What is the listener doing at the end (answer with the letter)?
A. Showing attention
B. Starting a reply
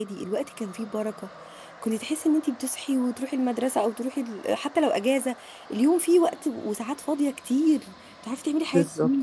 A